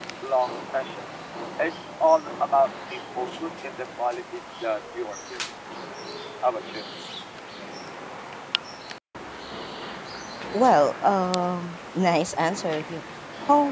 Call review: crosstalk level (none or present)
none